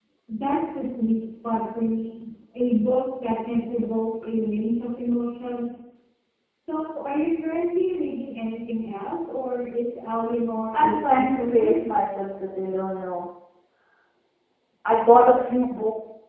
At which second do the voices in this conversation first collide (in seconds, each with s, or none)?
10.7 s